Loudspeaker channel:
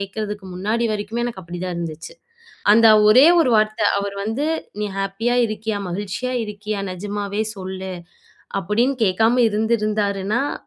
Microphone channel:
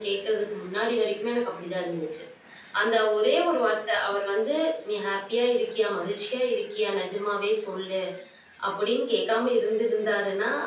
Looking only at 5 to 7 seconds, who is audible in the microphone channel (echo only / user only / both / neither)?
echo only